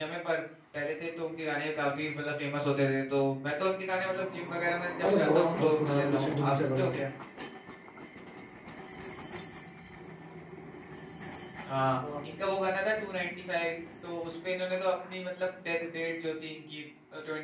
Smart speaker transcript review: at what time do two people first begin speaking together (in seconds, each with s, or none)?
5.0 s